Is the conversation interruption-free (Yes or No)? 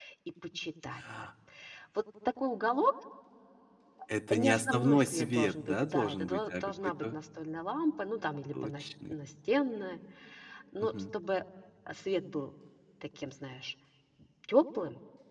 No